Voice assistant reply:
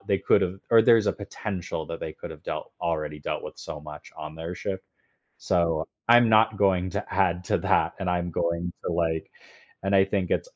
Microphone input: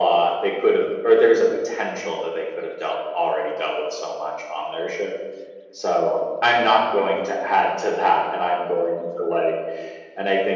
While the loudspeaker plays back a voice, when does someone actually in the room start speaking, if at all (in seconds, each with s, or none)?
none